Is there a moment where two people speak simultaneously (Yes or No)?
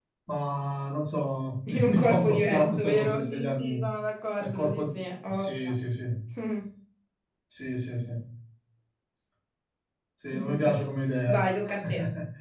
Yes